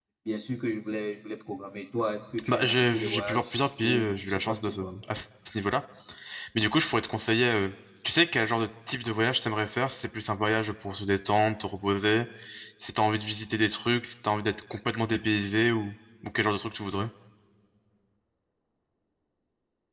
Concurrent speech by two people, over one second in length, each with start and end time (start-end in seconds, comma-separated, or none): 2.5-4.9